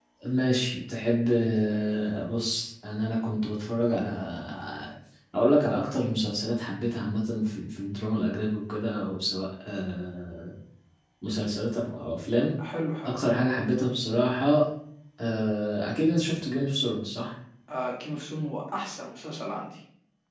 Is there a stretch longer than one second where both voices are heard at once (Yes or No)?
No